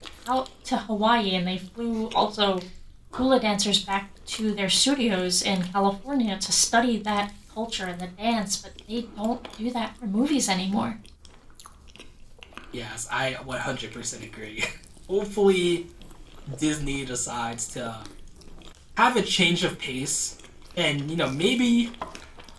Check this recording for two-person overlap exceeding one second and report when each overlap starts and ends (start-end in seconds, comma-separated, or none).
none